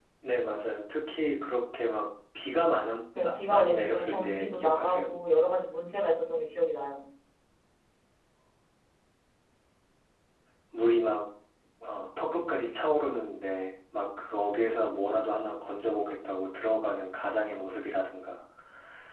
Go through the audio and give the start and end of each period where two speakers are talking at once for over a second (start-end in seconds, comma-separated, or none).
3.2-5.1